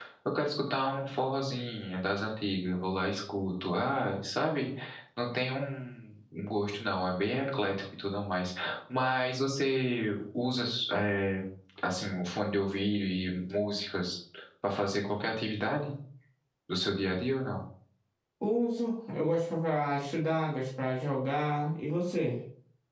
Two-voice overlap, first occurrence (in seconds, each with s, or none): none